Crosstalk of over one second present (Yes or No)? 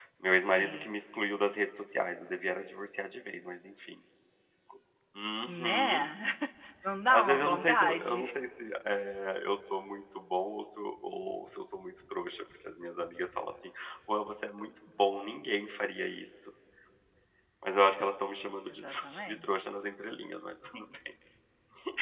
Yes